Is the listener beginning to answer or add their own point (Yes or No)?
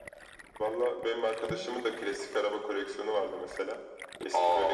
No